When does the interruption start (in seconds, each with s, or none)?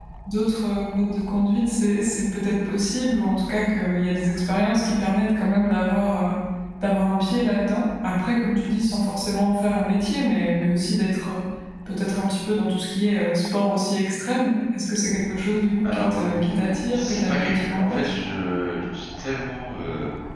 15.8 s